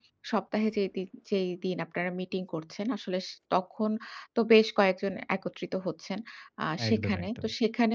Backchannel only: Yes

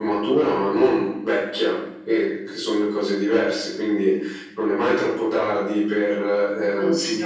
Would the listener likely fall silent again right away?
Yes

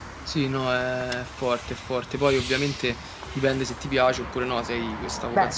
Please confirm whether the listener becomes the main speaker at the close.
No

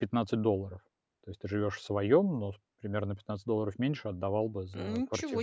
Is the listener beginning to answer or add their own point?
Yes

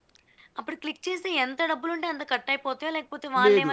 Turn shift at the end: Yes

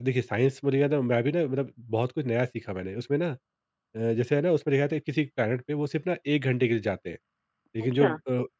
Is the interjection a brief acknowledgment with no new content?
Yes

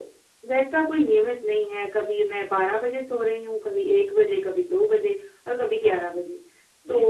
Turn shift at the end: No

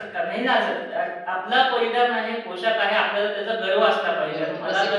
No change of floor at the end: No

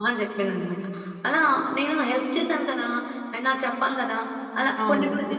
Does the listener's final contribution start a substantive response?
Yes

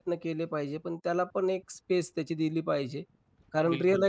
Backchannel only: Yes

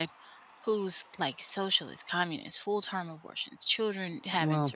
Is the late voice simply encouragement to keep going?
Yes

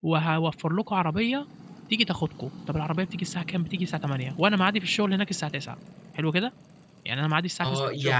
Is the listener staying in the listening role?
No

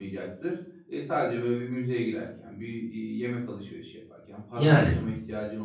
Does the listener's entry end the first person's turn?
No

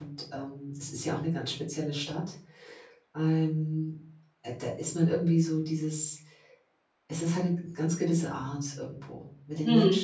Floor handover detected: No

